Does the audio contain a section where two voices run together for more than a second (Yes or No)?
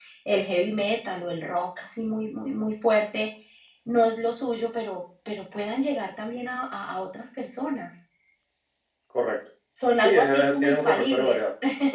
Yes